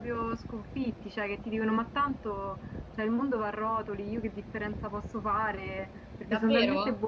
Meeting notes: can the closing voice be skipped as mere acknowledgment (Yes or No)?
No